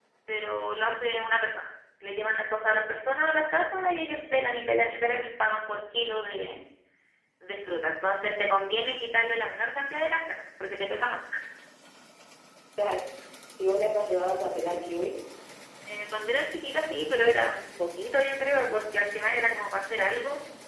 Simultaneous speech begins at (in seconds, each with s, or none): none